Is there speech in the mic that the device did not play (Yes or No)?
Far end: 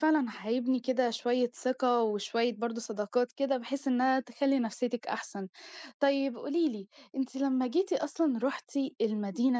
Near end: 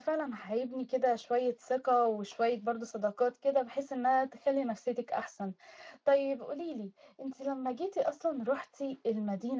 No